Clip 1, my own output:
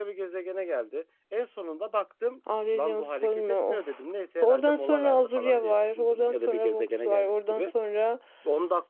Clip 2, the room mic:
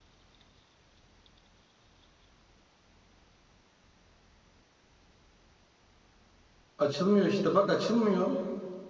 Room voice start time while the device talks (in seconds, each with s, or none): 6.8 s